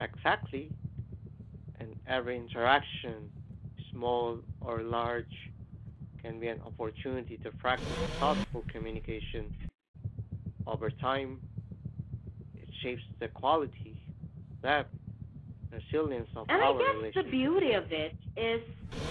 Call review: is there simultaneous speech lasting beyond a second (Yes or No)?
Yes